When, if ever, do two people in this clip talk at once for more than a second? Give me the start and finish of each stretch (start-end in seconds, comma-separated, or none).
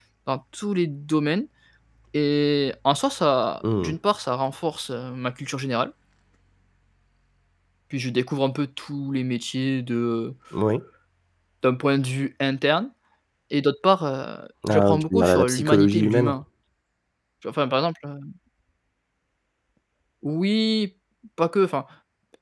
14.7-16.3